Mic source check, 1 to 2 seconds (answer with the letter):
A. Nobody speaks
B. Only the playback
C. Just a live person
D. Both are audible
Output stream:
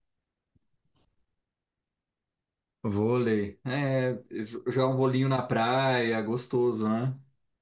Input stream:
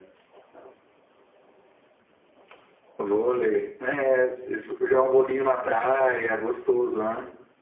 A